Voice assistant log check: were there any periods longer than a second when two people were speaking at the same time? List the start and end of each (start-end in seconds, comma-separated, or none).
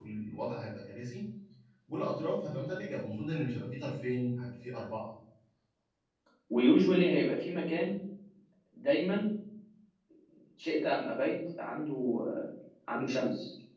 none